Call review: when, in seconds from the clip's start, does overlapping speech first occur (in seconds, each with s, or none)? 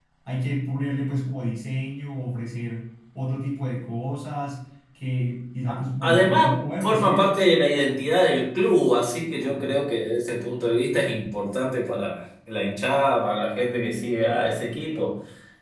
5.7 s